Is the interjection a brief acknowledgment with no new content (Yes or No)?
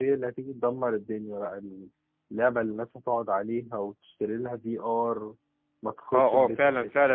No